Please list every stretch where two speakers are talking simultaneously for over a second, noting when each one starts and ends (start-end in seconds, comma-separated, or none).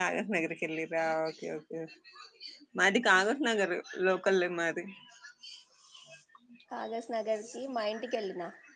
none